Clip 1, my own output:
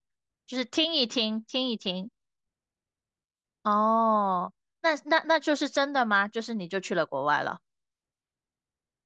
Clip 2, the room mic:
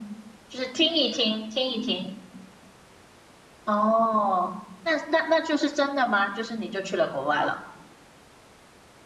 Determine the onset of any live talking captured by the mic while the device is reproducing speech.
none

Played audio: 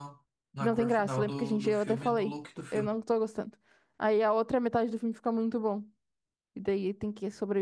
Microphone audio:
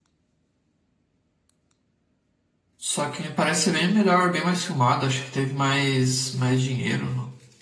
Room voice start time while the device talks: 2.8 s

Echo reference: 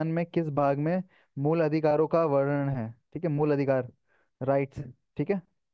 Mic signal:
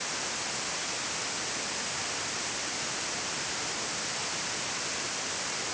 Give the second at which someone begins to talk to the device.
none

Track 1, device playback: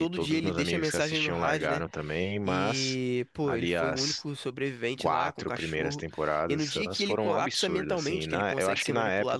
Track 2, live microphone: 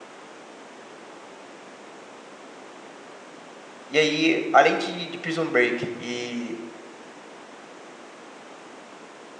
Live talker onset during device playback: 3.9 s

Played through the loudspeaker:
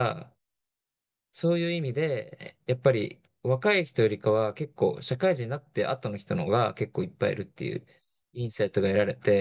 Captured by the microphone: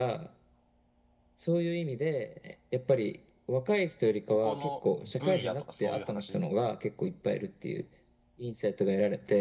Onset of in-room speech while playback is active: 4.3 s

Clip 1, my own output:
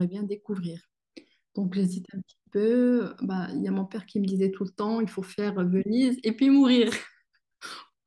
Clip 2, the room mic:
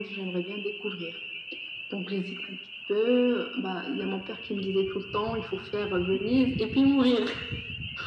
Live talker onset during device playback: none

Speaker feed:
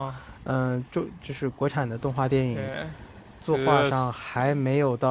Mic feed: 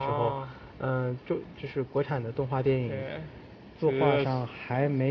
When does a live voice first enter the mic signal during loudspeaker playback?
none

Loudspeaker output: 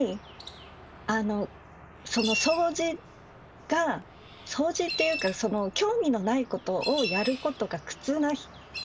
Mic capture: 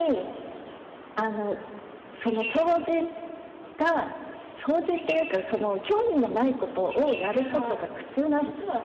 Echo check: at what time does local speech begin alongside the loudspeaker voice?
7.2 s

